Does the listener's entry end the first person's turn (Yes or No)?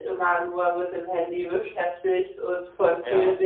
No